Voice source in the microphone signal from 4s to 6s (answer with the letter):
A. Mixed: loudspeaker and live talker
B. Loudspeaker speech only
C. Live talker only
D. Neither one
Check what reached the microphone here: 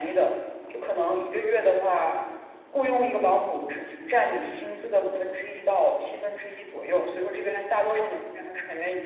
B